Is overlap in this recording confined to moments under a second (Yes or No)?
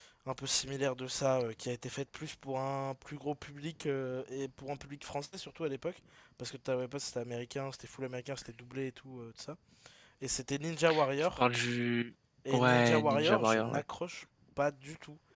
No